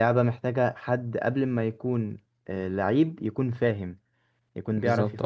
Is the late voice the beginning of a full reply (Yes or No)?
No